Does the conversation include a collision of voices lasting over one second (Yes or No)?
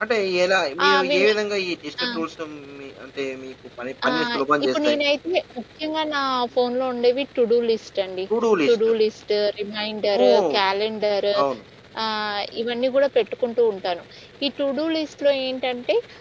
No